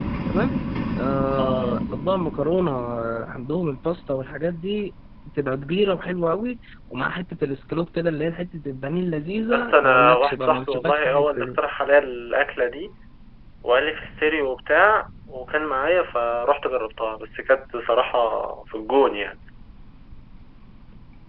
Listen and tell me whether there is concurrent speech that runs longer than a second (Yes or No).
Yes